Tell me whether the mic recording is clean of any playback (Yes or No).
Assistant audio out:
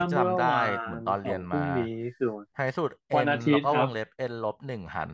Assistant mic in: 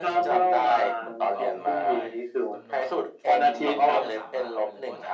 No